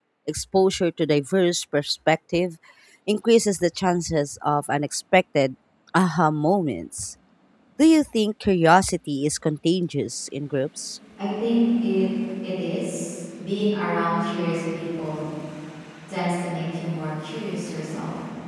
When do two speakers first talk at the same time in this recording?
none

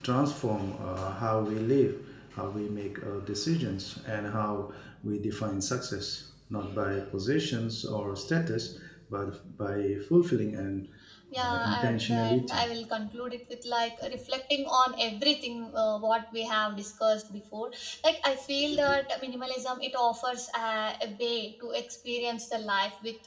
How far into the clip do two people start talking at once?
11.4 s

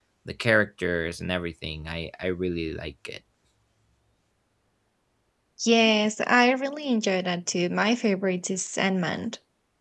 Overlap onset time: none

